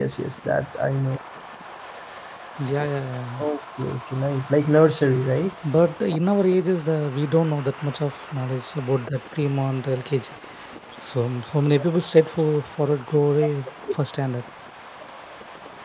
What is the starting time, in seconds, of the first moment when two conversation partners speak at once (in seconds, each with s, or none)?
none